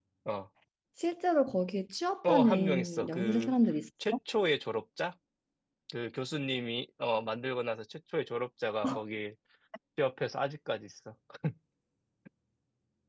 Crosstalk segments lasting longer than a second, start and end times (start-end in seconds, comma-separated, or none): 2.3-3.5